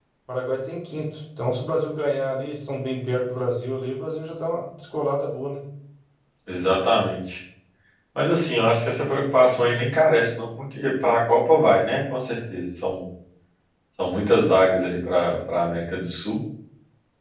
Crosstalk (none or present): none